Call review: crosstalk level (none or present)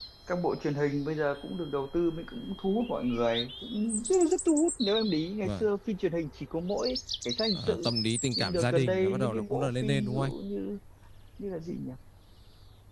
present